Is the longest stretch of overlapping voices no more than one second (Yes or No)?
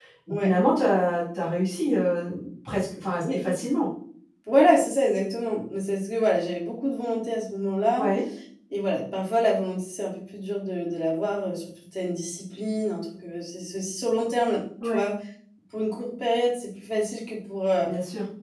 Yes